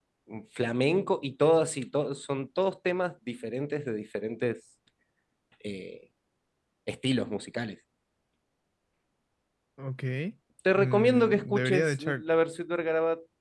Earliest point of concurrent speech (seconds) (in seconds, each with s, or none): 10.7 s